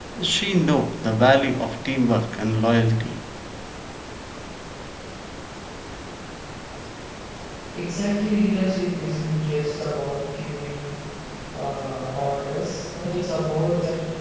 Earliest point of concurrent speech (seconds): none

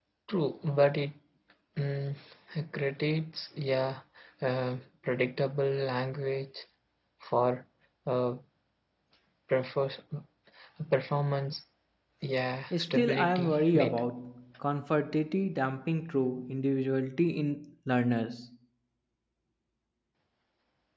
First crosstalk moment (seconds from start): 12.8 s

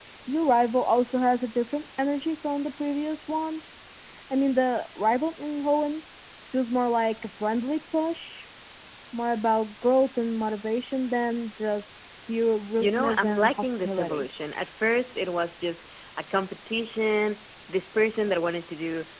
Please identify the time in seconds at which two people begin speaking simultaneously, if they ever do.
12.8 s

